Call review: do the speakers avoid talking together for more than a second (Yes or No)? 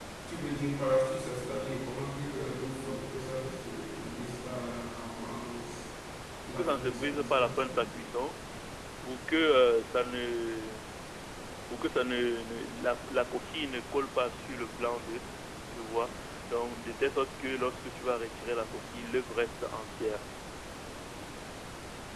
No